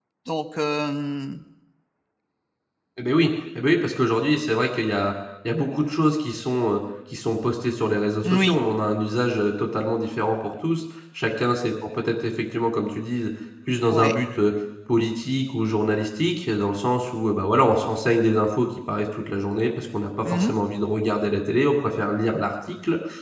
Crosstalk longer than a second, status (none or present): none